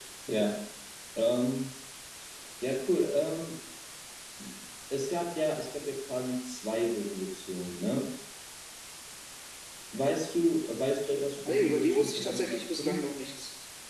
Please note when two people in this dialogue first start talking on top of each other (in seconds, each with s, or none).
11.4 s